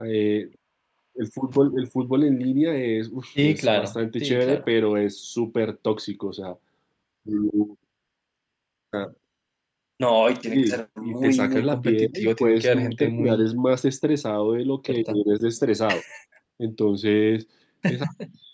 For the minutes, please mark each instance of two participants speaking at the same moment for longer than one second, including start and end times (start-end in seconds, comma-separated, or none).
3.4-4.6, 10.5-13.5